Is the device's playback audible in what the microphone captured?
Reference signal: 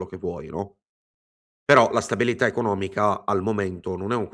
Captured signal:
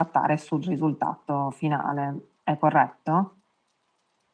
No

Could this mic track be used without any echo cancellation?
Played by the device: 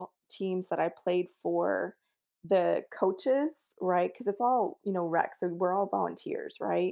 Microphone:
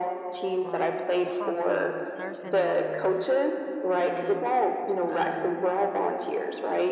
No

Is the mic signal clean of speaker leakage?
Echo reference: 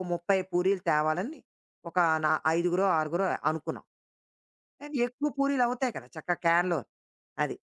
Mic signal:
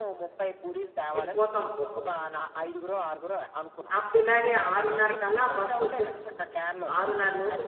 No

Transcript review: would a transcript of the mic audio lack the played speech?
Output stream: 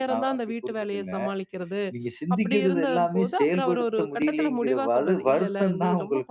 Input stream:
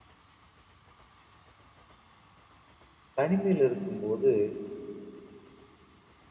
Yes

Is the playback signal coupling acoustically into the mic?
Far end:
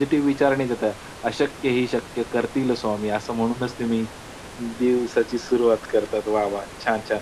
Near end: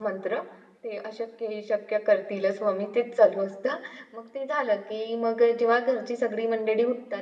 No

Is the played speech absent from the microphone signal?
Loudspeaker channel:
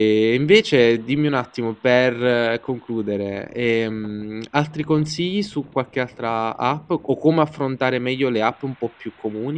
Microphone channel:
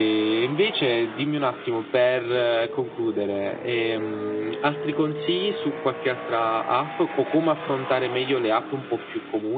No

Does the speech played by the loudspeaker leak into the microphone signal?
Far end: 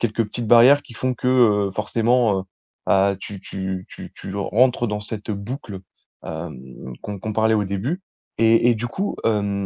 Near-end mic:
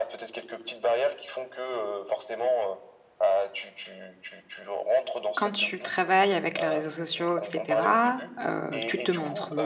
Yes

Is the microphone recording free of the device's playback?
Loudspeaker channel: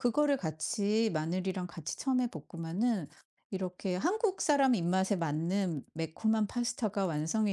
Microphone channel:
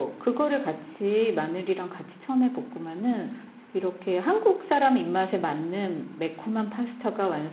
No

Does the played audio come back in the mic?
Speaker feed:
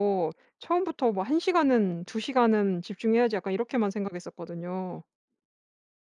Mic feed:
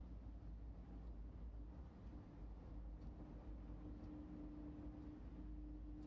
No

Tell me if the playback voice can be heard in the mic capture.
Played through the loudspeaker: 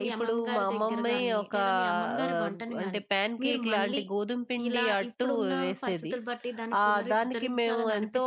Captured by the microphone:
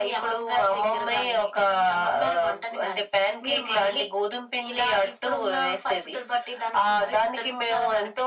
Yes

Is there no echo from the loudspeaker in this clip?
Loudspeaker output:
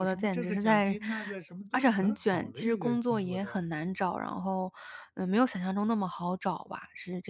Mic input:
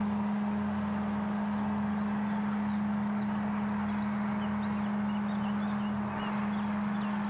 Yes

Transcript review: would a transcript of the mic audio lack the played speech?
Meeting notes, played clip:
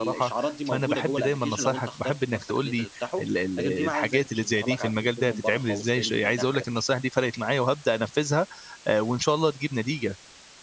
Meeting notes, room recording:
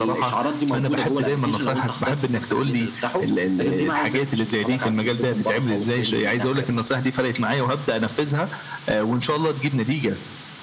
No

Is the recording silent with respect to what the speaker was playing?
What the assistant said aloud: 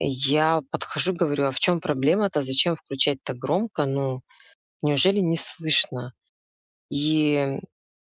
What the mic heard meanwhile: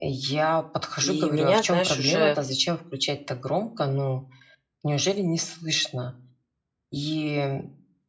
No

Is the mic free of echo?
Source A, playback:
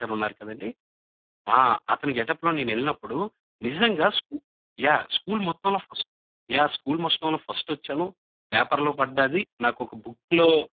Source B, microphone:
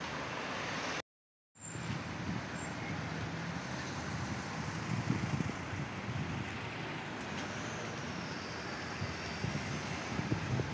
Yes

